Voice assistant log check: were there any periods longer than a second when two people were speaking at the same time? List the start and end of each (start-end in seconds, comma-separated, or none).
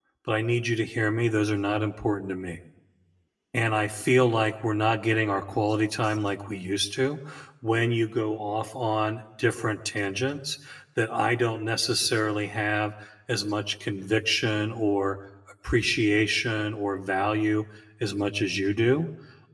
none